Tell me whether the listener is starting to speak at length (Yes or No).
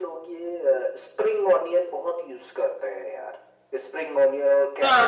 Yes